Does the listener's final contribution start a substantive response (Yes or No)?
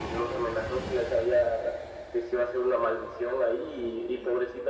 No